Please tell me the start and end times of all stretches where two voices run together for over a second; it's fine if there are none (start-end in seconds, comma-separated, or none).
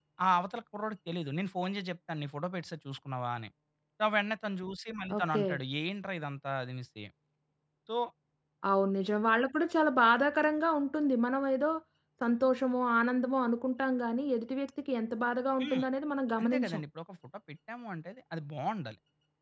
none